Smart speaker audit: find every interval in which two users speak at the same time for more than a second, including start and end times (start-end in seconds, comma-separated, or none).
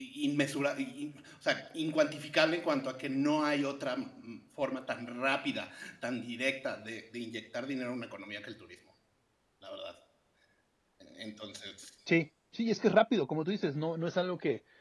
none